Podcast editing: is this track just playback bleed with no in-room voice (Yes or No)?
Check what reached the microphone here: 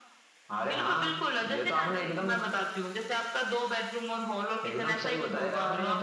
Yes